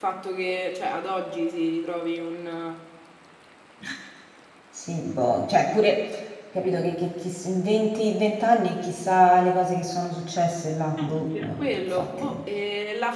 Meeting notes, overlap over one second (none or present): present